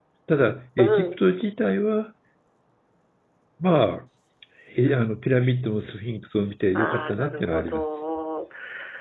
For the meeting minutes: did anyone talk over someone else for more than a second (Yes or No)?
Yes